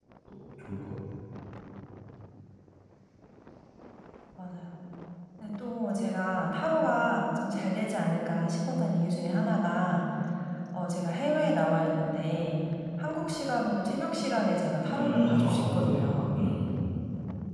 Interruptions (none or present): present